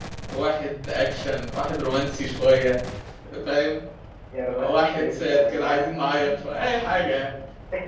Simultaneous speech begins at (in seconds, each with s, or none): 4.6 s